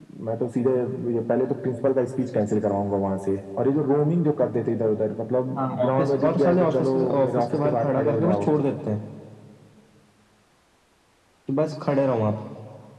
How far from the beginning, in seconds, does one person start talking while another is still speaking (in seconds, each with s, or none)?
5.6 s